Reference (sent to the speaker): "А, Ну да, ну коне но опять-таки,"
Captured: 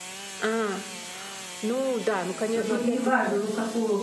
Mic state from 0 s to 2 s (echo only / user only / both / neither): echo only